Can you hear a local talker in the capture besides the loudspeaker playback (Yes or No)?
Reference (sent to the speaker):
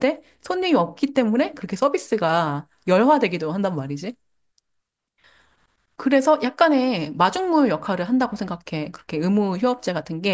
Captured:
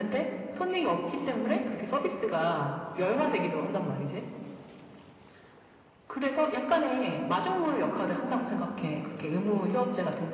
No